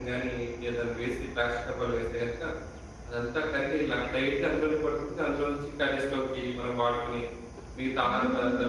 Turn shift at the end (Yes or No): Yes